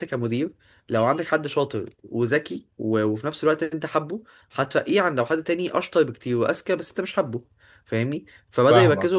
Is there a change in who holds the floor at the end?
No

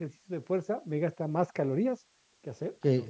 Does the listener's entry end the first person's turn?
Yes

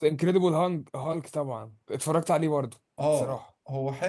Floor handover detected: Yes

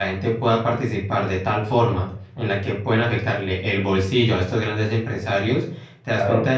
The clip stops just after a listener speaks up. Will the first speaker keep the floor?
Yes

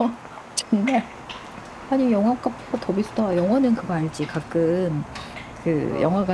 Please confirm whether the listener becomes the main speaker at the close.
No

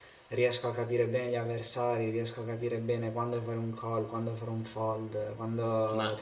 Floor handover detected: Yes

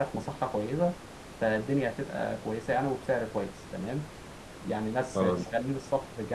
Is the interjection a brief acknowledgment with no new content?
Yes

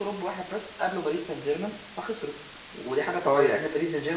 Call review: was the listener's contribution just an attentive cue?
Yes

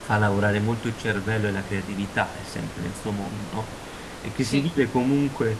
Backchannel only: Yes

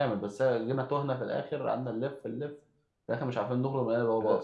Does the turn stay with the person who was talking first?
No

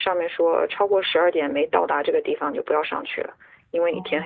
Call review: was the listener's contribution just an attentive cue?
No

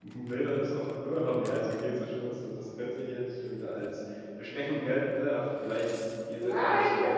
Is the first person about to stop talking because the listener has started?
Yes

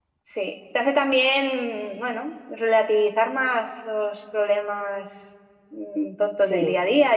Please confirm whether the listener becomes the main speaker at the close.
No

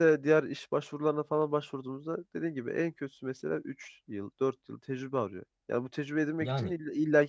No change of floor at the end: Yes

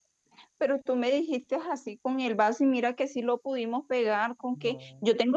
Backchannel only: Yes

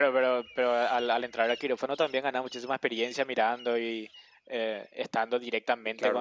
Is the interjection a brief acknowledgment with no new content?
No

